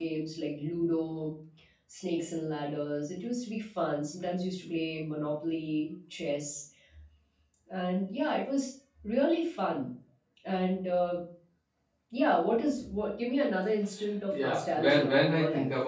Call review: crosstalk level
present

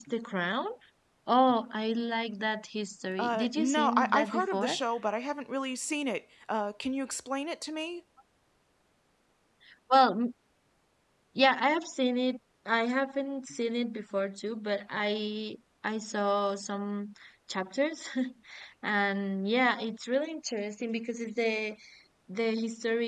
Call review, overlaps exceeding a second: present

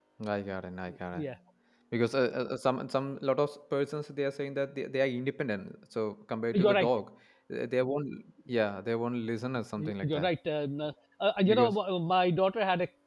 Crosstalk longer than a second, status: none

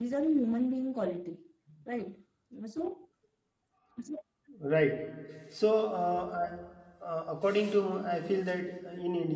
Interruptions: none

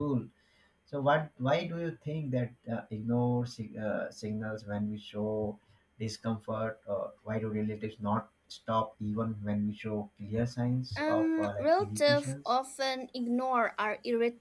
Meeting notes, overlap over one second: present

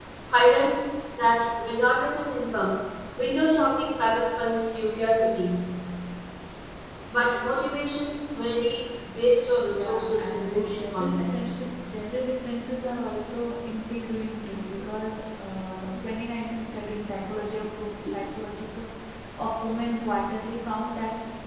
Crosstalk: present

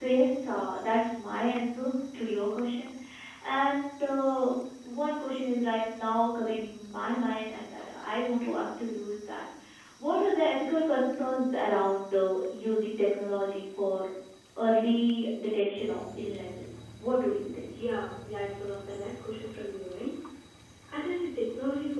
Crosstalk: none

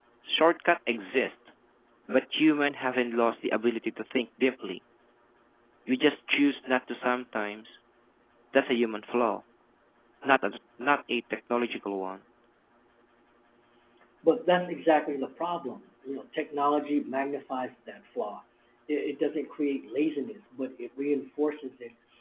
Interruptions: none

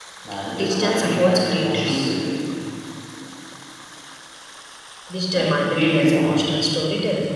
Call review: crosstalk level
present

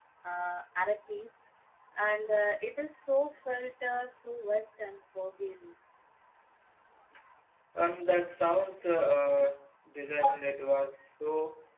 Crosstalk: none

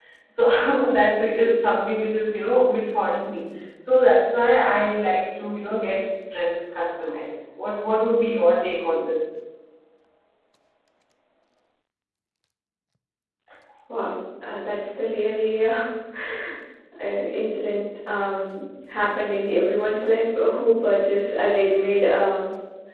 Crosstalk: none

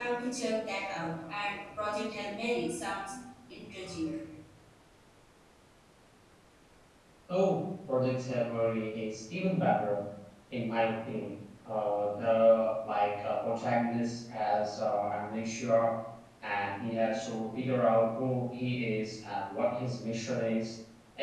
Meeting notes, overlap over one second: none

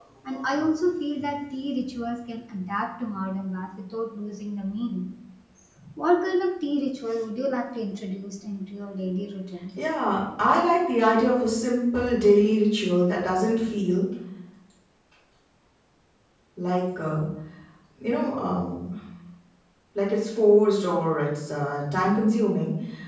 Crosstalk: none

